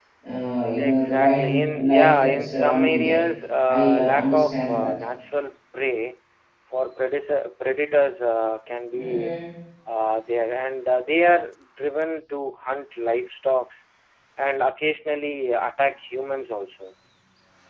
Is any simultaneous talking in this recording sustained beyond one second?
Yes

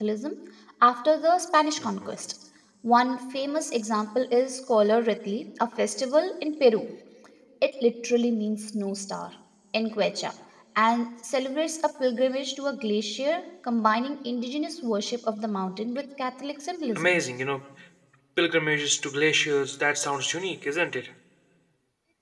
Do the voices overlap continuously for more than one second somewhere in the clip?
No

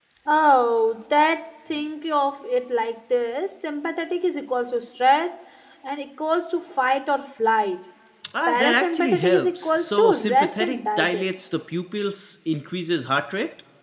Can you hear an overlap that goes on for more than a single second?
Yes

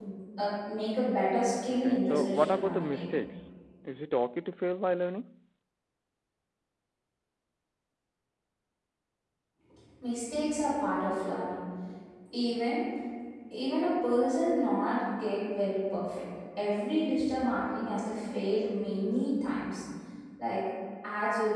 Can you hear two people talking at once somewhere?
Yes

